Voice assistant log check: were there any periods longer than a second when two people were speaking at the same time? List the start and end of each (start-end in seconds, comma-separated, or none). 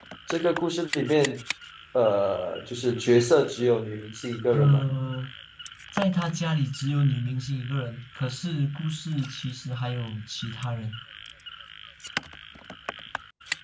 none